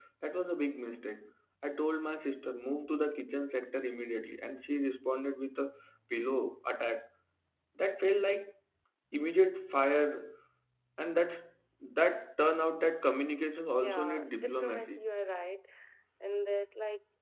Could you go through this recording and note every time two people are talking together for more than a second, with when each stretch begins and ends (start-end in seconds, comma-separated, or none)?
13.8-15.1